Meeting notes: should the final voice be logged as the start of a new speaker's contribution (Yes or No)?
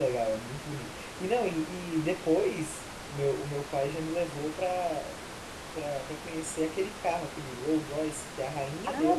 Yes